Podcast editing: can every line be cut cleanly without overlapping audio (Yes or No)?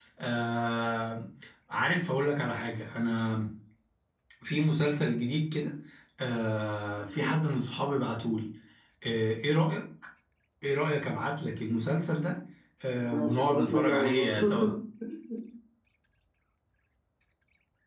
No